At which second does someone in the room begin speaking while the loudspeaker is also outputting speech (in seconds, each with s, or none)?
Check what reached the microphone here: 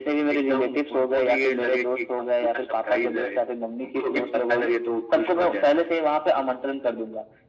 none